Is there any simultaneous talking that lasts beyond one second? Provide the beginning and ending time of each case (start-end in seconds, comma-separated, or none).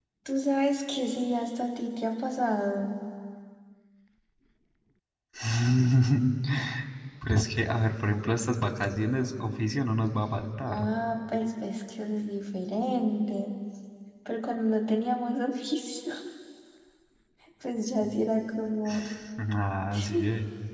none